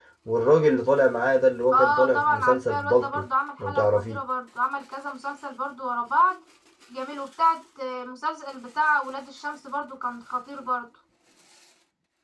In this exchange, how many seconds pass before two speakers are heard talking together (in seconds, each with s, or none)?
1.7 s